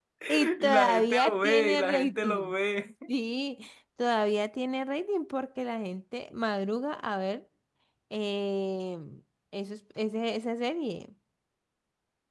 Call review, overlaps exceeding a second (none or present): present